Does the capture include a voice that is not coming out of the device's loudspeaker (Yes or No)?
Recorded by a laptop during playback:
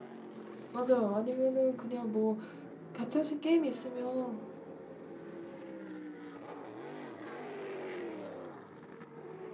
Yes